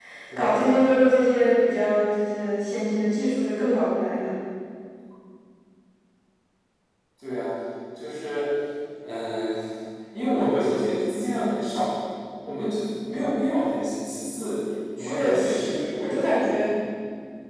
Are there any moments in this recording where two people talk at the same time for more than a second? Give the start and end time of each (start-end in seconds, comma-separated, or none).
15.0-16.3